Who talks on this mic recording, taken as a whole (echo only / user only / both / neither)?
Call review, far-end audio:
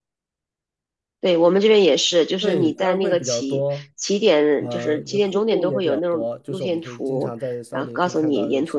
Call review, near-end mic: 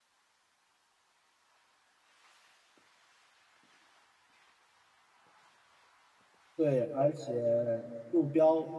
user only